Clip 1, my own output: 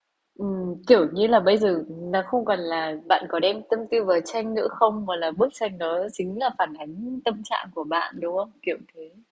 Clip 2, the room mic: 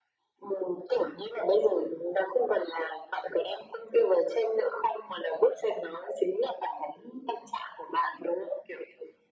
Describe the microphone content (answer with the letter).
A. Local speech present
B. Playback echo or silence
B